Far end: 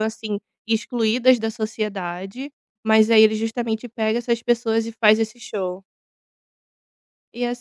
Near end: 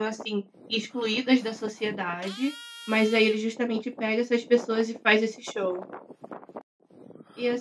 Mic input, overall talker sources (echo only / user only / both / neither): echo only